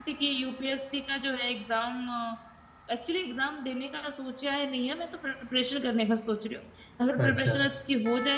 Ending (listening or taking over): listening